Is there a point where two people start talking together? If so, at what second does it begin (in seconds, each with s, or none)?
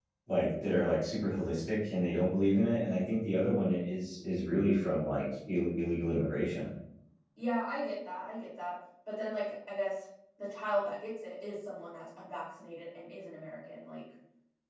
none